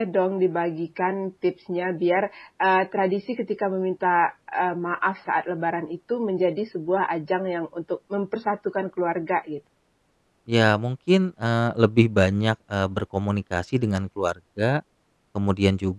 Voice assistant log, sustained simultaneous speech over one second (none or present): none